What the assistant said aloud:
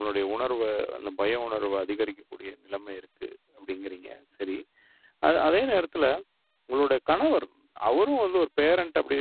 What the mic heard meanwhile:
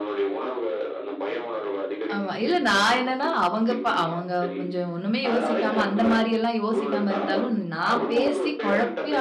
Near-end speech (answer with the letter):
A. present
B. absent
A